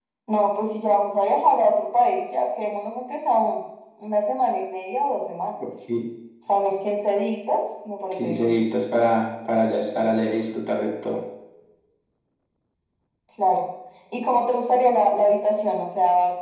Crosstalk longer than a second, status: none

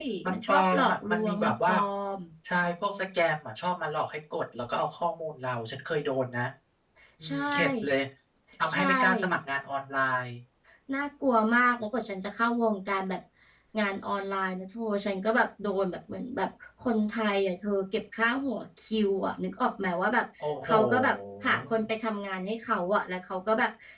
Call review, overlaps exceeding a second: present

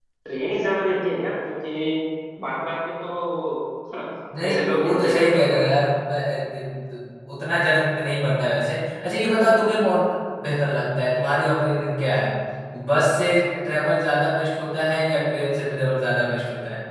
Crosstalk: present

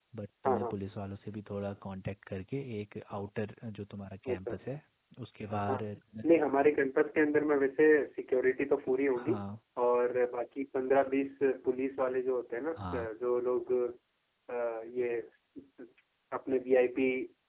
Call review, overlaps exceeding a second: none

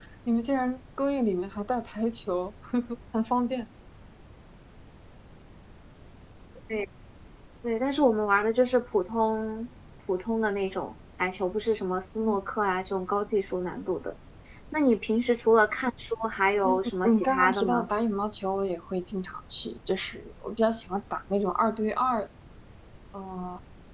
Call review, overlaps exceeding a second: present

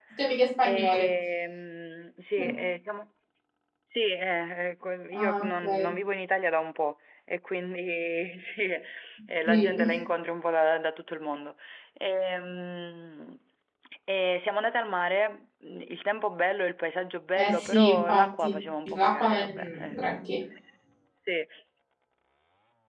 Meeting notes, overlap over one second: present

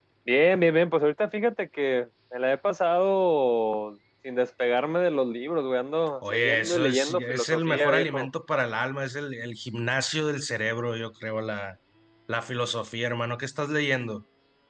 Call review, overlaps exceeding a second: present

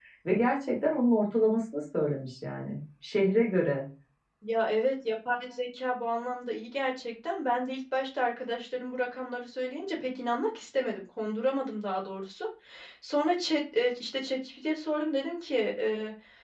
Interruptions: none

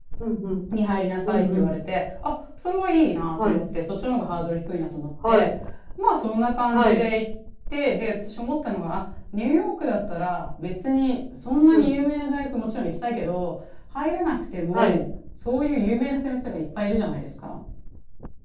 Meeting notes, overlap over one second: none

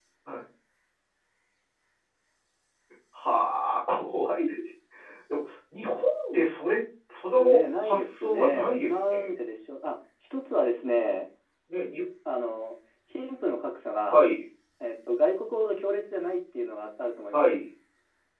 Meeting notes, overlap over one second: present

